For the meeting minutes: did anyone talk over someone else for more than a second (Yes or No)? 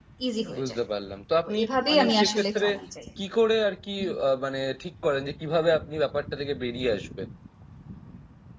Yes